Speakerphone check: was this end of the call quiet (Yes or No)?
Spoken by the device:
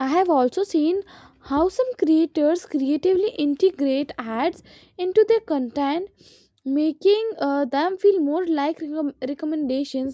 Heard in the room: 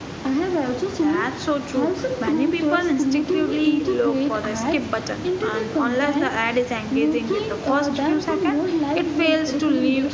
No